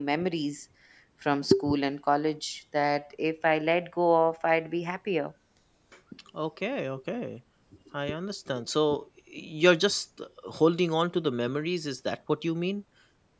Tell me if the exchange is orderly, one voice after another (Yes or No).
Yes